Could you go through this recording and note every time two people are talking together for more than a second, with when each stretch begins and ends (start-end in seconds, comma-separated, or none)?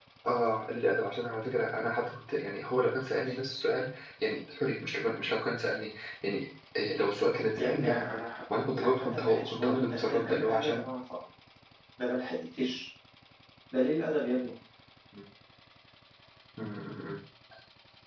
8.8-10.8